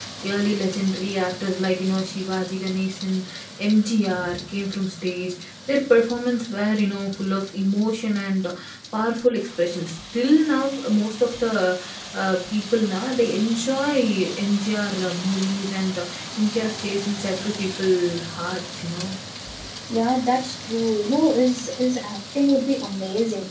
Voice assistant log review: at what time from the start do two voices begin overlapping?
none

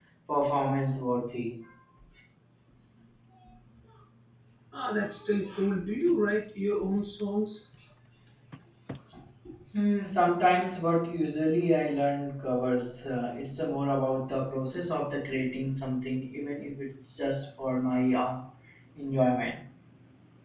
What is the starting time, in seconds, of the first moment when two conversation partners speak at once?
none

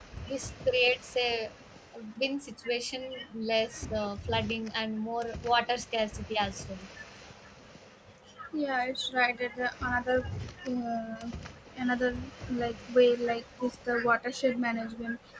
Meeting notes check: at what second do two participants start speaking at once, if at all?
none

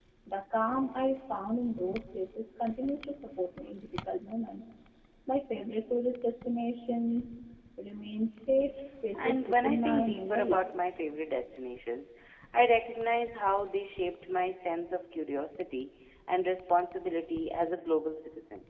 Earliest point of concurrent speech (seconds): 9.2 s

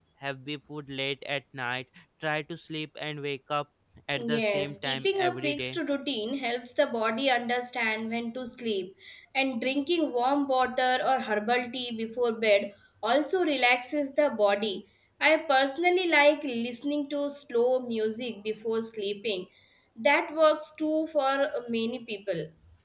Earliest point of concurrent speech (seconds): 4.2 s

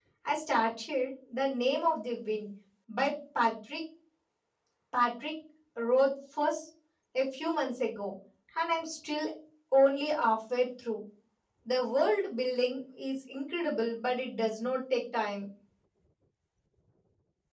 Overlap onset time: none

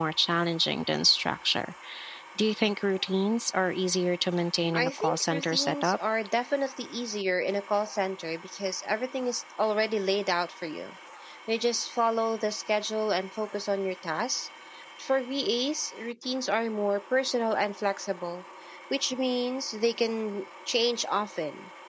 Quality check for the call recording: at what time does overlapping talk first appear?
4.7 s

